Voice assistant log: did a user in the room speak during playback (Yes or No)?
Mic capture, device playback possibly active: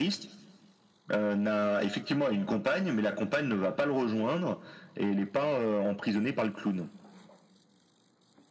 No